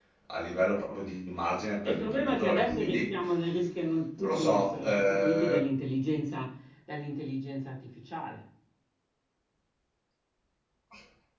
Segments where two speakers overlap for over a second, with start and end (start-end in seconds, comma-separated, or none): 1.9-3.2, 4.2-5.7